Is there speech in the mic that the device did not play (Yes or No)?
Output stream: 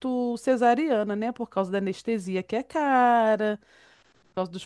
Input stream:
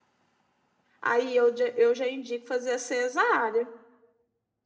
Yes